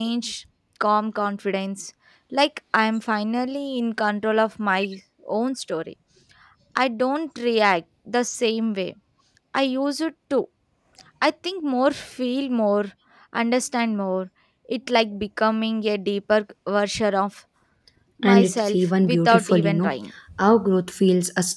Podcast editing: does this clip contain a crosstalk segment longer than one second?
Yes, from 18.2 s

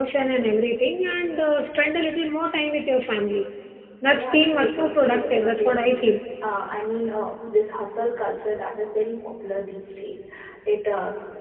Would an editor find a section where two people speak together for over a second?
Yes, from 4.1 s

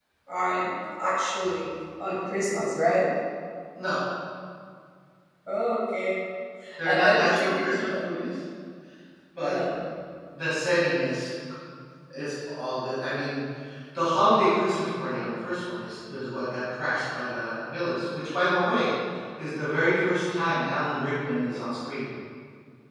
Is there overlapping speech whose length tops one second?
Yes, from 6.8 s

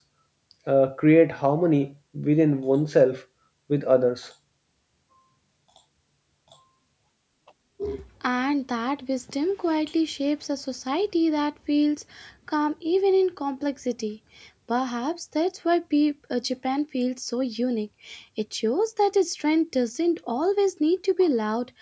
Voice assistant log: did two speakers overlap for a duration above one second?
No

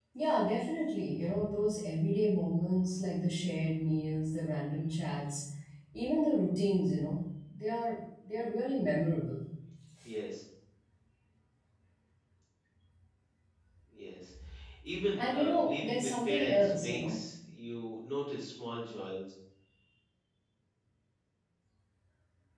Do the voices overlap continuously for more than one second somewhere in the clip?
Yes, from 15.2 s

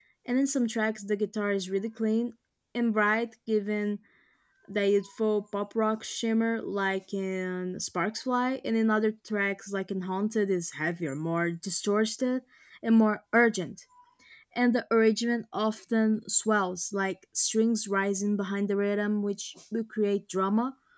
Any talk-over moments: No

